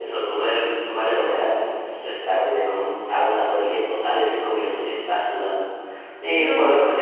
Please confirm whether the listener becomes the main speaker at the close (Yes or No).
No